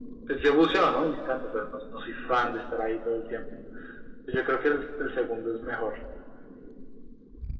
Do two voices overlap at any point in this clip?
No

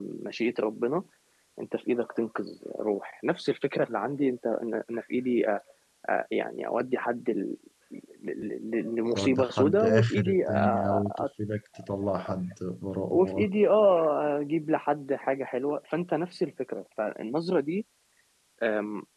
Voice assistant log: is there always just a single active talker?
No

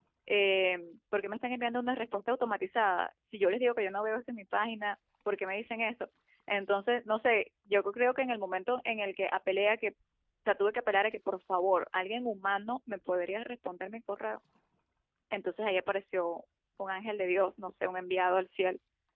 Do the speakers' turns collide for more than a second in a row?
No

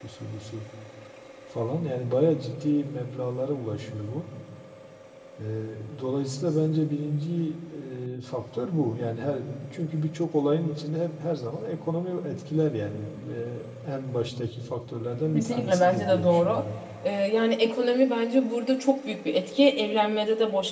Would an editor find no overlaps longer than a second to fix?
No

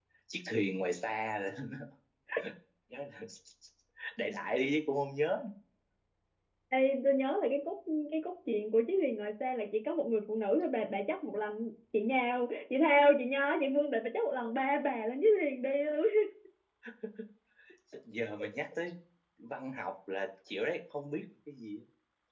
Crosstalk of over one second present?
No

